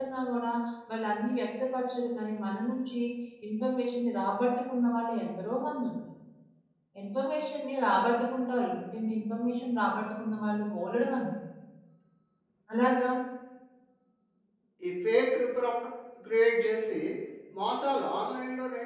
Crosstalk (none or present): none